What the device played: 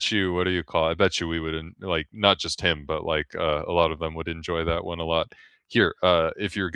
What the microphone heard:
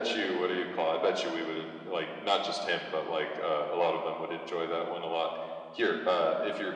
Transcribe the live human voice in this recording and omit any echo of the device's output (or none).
none